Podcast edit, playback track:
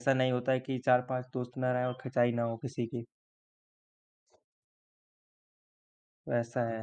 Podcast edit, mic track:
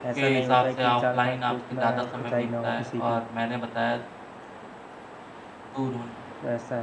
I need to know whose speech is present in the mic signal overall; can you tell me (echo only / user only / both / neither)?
both